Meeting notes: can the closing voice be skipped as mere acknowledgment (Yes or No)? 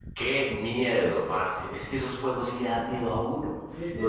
Yes